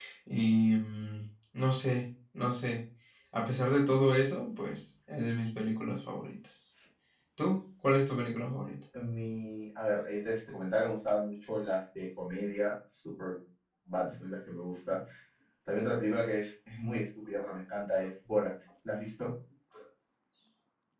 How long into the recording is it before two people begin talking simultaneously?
none

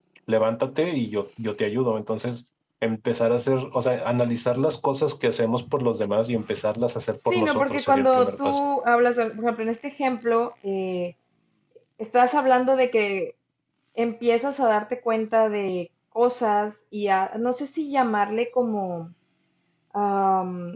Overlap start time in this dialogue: 7.3 s

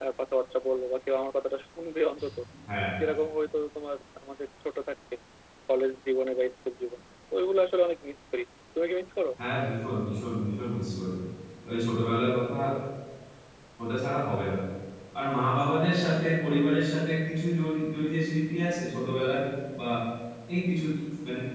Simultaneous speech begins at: none

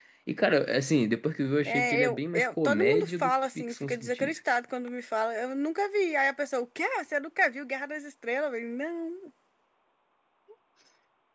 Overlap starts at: 1.6 s

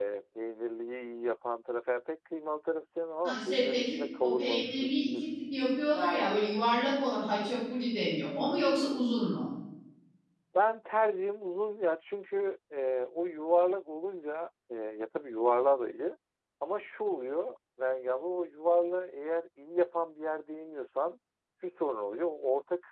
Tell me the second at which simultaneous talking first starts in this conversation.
3.2 s

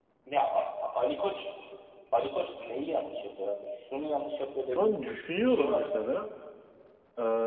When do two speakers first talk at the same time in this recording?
4.7 s

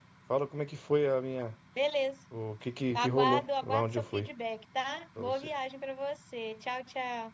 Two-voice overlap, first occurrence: 3.0 s

